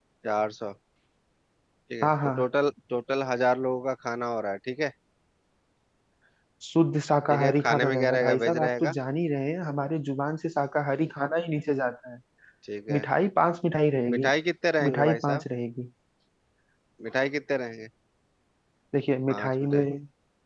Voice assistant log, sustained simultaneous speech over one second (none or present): present